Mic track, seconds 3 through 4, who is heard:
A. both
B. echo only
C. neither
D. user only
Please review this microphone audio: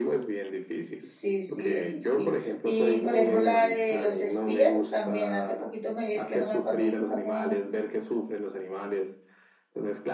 A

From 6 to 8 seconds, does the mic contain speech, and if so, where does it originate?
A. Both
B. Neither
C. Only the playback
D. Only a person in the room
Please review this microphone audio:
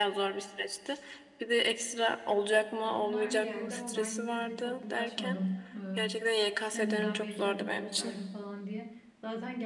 A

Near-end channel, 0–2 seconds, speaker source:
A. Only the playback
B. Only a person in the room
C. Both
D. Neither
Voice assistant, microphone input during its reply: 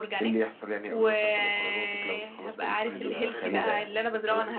A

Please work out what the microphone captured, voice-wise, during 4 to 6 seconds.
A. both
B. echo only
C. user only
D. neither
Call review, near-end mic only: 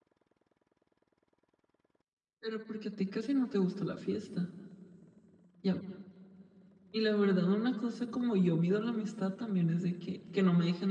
C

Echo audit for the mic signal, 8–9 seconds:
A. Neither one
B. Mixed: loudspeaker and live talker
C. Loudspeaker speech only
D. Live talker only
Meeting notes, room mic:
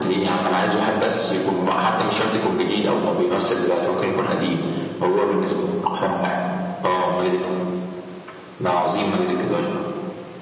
C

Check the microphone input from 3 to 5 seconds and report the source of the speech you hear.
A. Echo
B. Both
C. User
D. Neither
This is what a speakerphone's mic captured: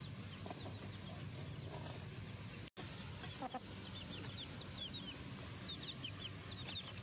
D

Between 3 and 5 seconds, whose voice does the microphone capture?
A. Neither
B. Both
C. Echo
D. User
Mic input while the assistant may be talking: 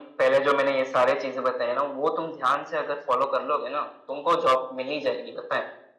C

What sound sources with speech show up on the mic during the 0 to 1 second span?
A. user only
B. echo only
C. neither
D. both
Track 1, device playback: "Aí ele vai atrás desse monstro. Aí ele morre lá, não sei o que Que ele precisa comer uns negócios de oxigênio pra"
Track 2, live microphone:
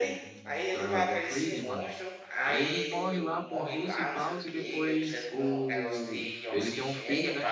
D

